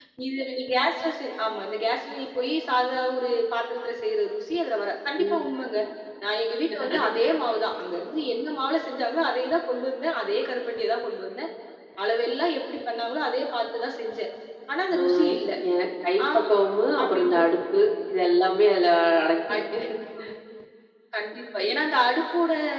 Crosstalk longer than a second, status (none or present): none